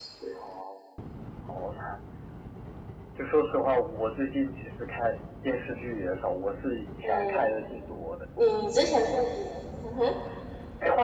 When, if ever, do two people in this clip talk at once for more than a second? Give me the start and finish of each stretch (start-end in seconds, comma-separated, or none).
none